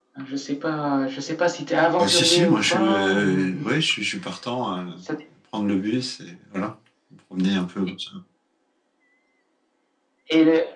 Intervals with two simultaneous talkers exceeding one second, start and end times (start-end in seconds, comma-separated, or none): 2.0-3.5